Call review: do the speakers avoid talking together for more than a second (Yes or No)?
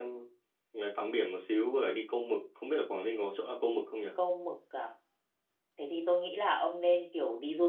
Yes